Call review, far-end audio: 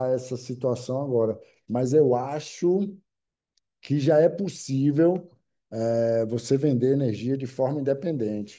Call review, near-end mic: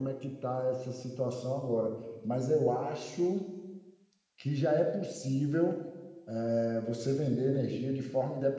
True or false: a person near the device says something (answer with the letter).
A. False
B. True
A